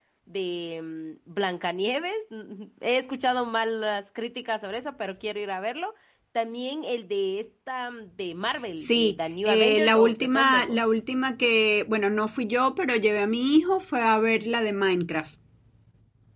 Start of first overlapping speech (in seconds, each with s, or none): 8.8 s